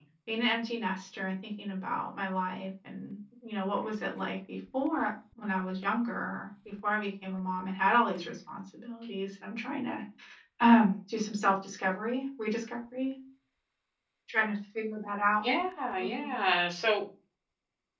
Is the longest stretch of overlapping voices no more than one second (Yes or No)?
Yes